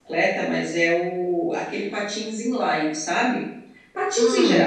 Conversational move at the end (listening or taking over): listening